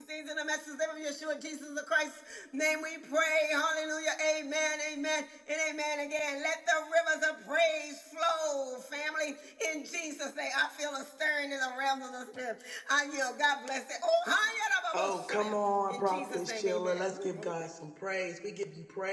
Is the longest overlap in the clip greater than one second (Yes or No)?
Yes